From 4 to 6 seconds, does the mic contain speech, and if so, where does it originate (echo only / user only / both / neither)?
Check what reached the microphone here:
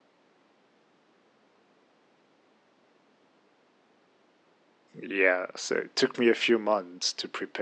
user only